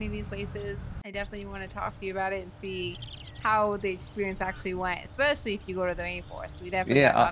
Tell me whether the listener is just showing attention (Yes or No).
No